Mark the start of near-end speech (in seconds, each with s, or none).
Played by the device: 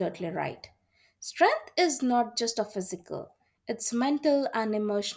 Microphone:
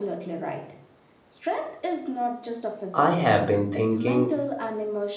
3.0 s